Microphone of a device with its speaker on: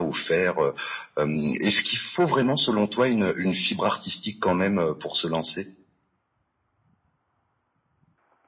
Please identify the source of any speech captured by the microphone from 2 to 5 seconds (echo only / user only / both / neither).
echo only